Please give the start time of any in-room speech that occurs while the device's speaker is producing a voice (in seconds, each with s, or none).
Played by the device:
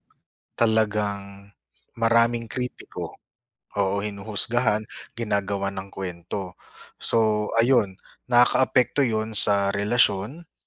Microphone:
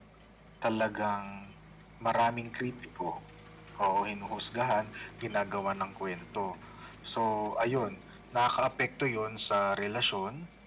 none